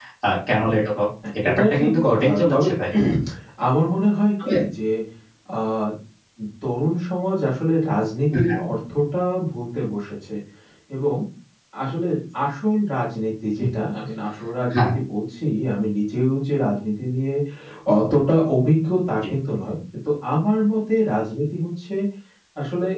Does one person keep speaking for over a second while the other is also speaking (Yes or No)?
Yes